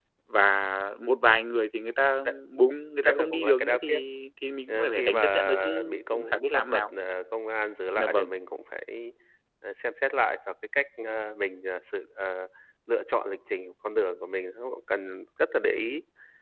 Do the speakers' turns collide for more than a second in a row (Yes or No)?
Yes